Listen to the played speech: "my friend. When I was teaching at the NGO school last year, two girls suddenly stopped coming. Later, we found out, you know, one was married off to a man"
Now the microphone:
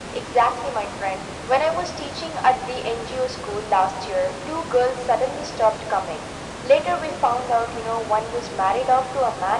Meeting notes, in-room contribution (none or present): none